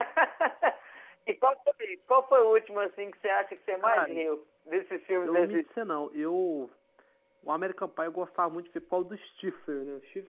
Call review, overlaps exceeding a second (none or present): none